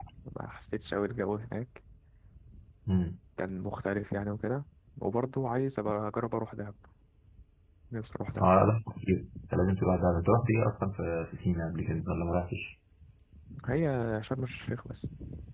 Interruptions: none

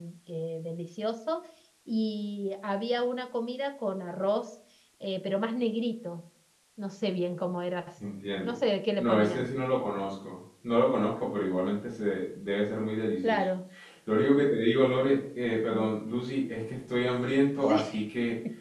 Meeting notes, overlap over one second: none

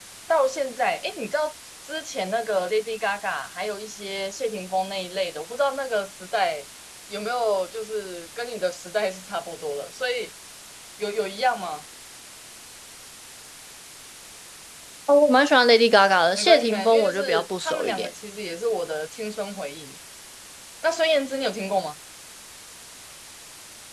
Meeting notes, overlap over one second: present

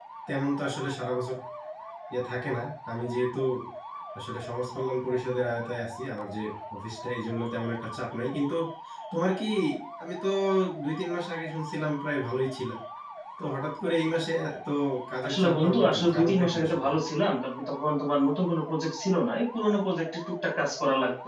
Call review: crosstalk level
present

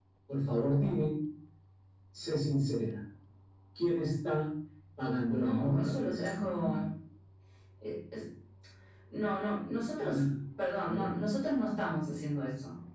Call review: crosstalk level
present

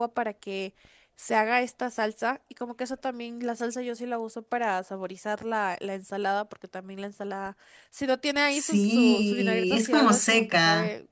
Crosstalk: present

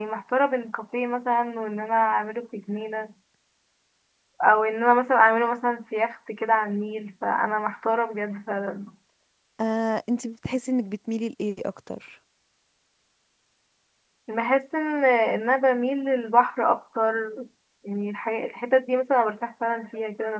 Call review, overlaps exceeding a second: none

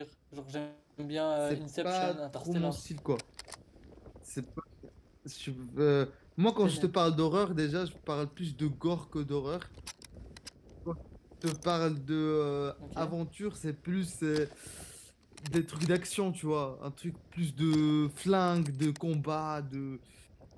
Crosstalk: present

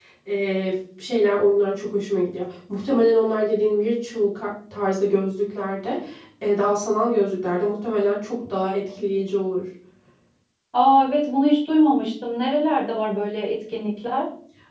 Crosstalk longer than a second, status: none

